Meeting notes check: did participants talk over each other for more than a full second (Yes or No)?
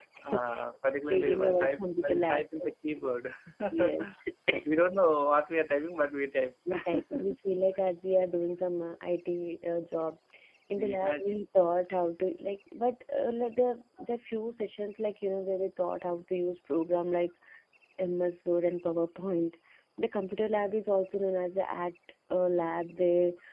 Yes